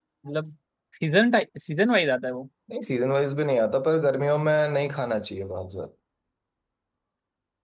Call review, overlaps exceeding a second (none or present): none